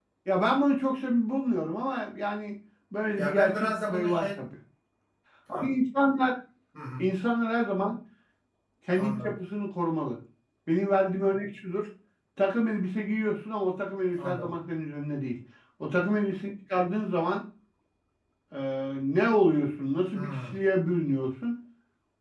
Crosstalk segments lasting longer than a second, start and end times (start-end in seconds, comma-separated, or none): 3.2-4.4